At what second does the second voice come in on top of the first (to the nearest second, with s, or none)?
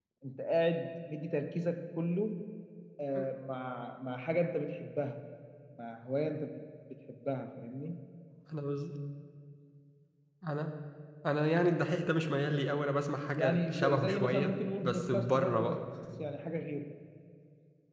13 s